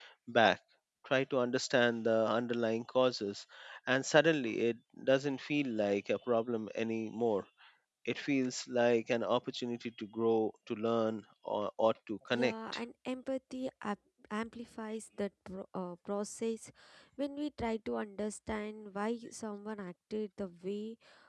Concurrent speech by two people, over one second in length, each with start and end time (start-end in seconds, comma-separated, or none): none